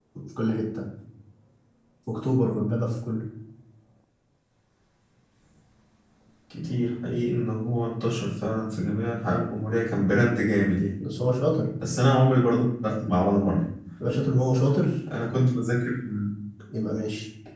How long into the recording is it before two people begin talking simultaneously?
none

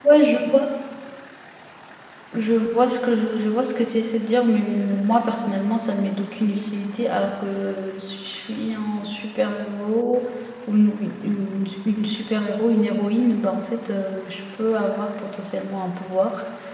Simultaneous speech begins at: none

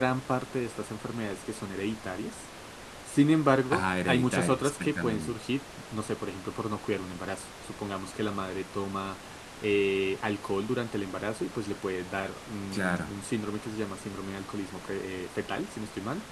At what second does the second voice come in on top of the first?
3.7 s

